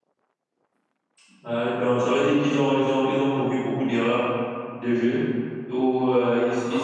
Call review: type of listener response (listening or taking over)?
listening